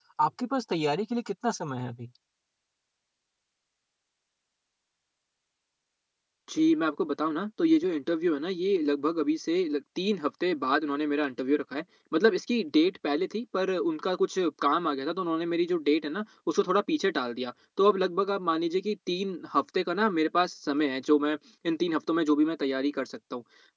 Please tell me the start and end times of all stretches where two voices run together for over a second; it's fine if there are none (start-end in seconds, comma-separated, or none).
none